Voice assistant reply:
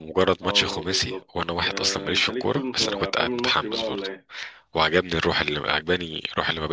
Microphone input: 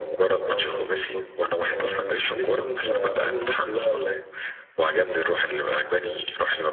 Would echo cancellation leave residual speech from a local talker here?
No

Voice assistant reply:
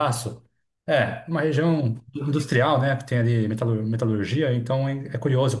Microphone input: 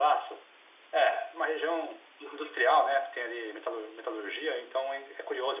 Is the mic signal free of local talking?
Yes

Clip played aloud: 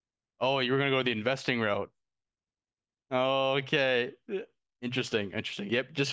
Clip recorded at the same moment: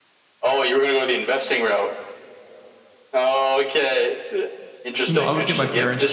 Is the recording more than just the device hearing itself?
Yes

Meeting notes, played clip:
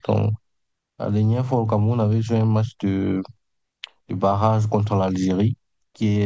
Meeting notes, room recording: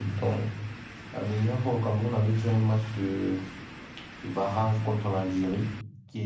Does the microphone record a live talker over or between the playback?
No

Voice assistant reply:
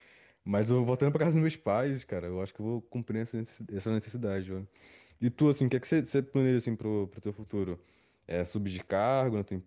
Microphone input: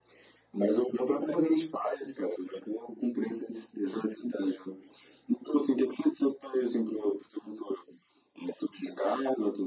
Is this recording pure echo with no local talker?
Yes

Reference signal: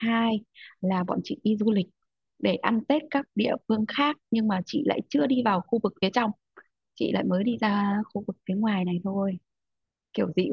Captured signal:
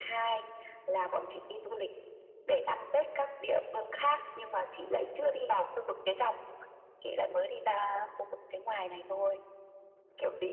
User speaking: No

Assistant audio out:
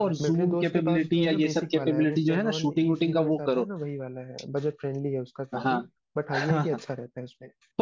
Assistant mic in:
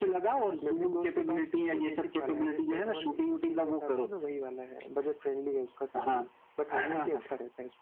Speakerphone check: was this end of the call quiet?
Yes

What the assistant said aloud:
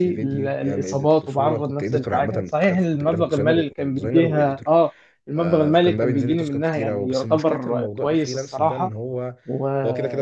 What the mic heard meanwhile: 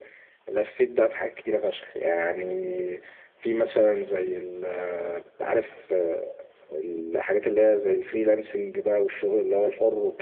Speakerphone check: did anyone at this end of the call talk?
Yes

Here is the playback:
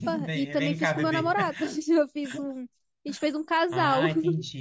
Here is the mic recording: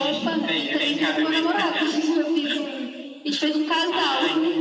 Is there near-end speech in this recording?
No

